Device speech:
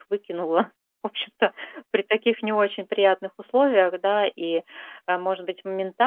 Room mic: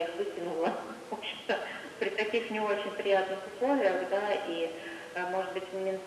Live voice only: none

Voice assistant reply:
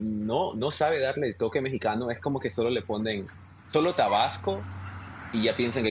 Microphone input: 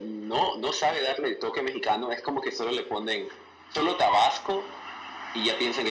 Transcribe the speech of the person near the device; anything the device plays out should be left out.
none

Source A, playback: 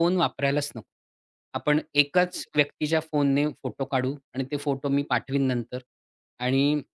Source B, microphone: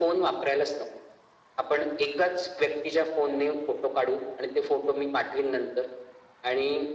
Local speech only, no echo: none

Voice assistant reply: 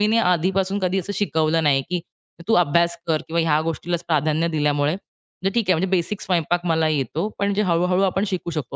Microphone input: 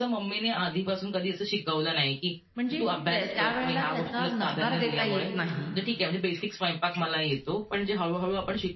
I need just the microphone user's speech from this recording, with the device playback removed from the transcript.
म्हणजे त्या त्यावेळेला त्याचा नकार देता येत नाही.

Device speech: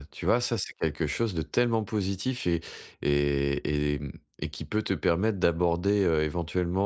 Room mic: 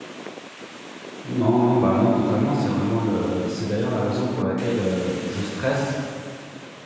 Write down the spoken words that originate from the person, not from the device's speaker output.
Non, non, bah, non, totalement, c'est vraiment le c'est d'ailleurs la raison pour laquelle, heu, je stresse,

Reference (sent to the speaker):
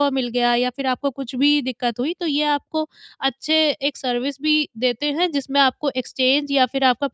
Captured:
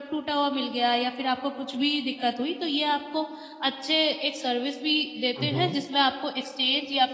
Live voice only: हुँ, हुँ।

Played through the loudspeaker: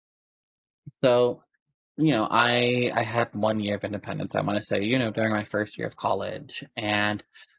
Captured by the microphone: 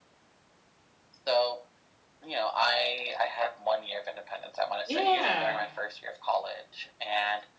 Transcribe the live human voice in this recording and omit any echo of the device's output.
Yeah.

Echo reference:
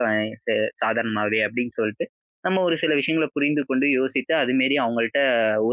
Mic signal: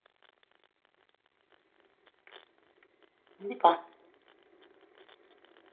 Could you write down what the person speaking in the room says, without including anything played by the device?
கண்டிப்பா.

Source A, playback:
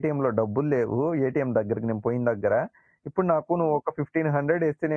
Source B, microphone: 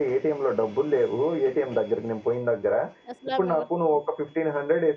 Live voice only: అసలు ఆమె ఎవరు

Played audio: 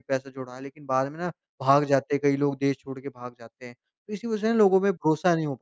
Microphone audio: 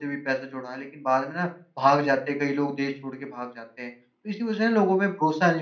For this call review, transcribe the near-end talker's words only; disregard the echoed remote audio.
none

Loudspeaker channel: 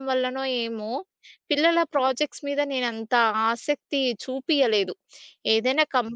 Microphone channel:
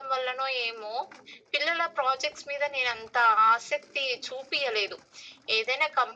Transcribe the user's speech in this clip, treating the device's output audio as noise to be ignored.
none

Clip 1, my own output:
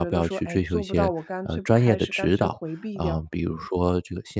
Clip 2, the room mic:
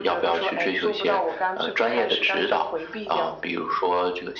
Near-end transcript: none

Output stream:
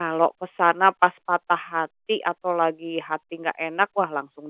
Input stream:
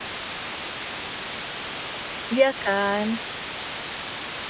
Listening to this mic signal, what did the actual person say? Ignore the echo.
Iya kan?

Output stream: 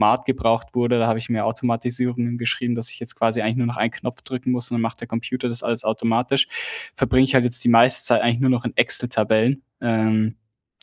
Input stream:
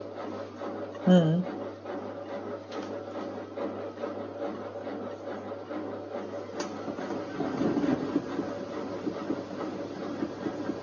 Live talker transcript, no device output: Mhm.

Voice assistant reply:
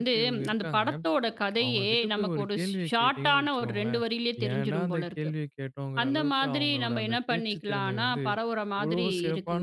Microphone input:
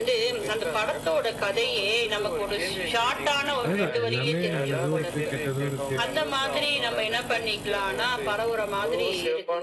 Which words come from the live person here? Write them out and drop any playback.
அதுதான் எல்லாமே நல்லதும் இருக்கு, கெட்டதும் இருக்கு.

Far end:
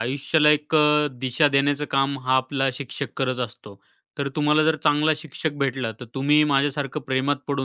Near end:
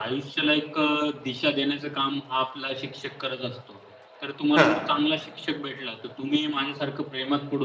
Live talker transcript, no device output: हा

